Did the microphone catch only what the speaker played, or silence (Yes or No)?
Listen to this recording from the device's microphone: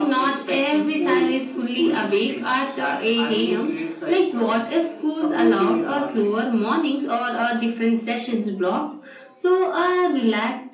Yes